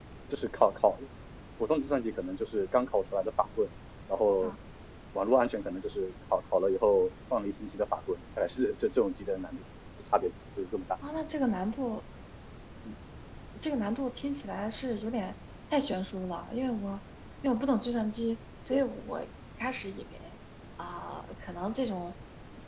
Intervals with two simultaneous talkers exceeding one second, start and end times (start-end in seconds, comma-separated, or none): none